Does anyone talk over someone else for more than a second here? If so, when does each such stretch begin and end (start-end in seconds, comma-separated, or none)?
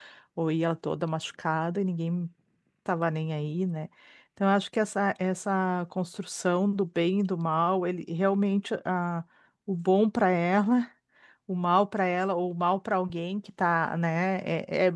none